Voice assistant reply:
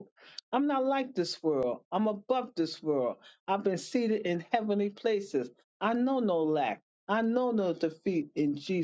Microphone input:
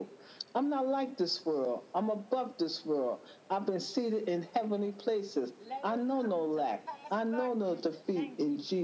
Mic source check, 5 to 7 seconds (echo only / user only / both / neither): both